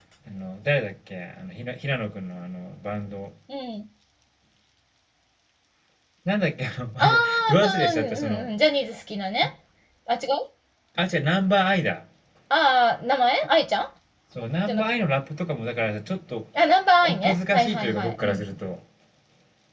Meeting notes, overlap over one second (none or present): present